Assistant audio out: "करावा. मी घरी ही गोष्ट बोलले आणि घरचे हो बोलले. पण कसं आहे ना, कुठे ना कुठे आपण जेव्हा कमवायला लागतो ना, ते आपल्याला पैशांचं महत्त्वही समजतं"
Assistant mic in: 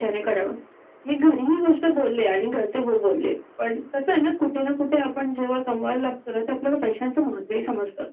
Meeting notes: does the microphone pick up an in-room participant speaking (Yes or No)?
No